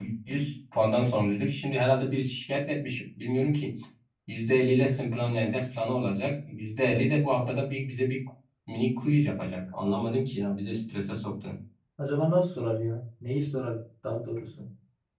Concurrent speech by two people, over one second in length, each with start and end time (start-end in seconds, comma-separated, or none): none